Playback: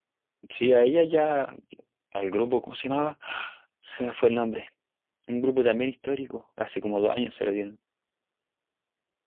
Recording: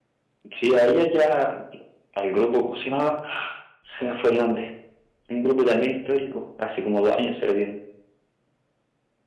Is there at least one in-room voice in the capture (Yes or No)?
No